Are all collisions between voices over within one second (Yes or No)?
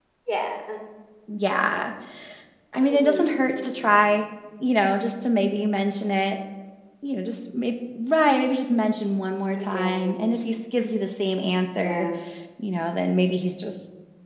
No